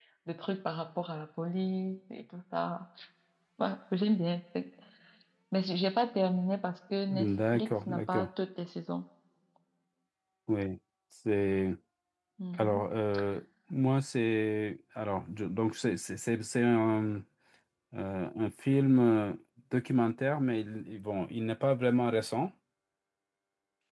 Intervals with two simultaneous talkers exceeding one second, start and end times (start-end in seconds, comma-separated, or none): 7.1-8.3